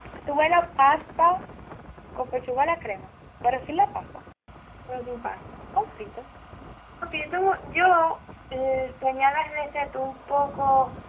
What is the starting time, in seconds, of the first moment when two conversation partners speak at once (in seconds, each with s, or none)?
none